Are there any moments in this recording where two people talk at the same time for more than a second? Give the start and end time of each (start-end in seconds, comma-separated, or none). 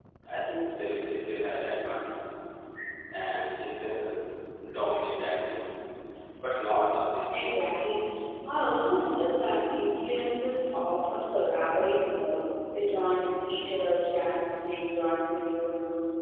none